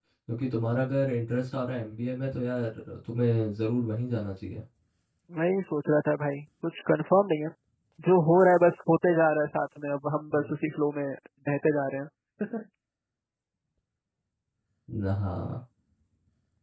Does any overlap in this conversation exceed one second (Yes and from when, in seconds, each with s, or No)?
No